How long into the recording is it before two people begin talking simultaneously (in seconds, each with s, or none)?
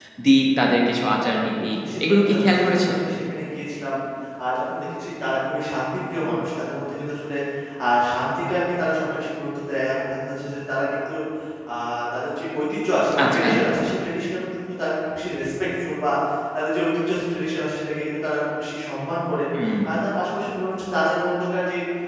1.2 s